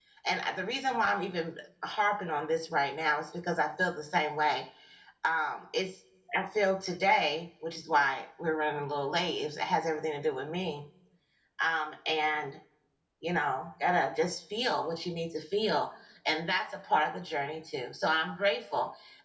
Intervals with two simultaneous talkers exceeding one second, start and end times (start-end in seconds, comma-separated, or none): none